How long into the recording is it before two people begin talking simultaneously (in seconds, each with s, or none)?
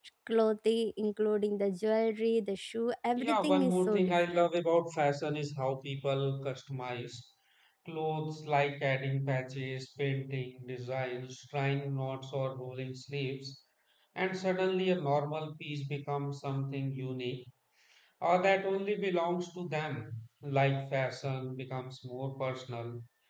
3.2 s